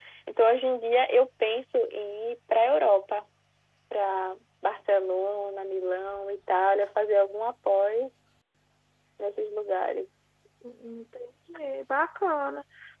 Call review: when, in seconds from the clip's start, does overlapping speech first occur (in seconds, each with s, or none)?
none